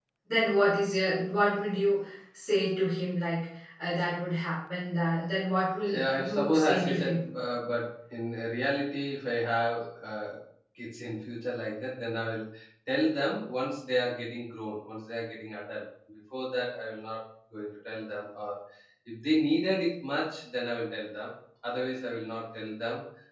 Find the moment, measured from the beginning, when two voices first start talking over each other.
5.9 s

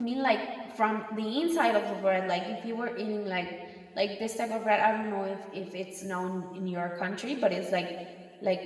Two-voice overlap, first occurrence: none

